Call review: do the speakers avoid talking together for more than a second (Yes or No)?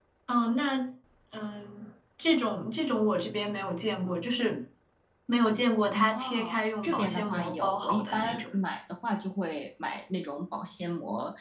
No